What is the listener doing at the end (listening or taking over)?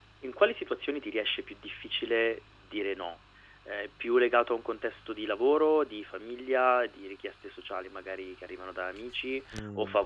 listening